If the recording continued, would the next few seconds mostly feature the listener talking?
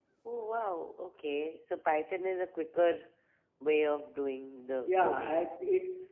Yes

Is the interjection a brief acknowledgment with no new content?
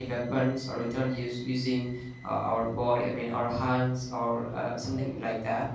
Yes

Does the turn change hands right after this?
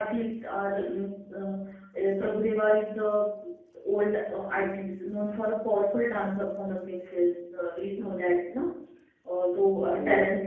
No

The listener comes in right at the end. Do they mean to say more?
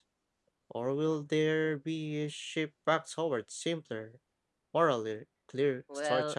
Yes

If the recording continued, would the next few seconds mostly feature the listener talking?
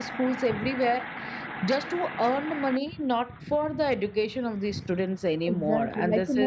Yes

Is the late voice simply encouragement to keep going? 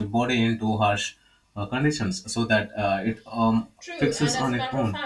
No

